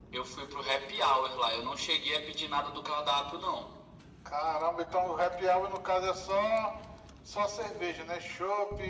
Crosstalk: none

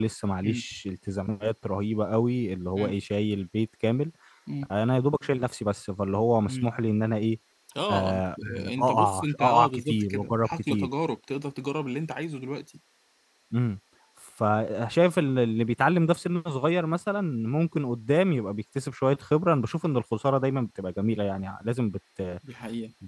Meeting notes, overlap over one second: present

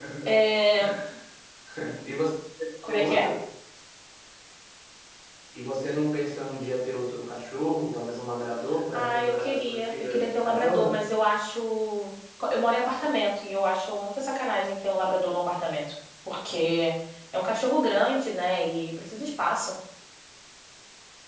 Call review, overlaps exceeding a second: present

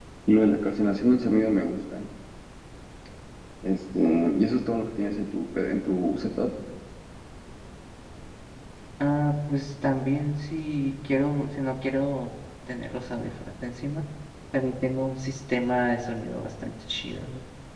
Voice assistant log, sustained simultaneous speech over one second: none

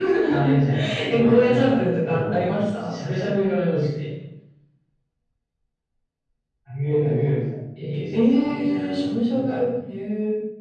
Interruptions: present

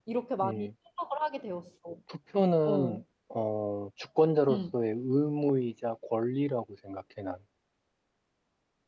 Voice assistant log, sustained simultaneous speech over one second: none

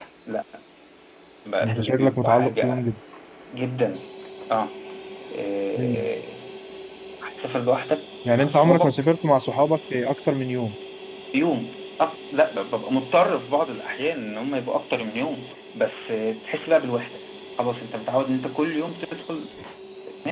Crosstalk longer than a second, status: present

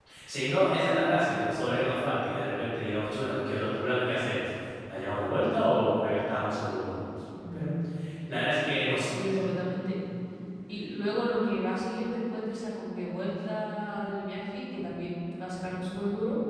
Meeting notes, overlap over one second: none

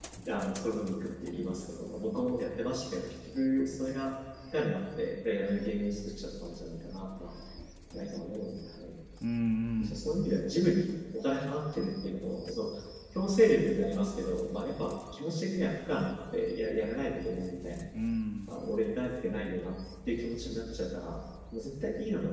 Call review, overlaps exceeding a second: none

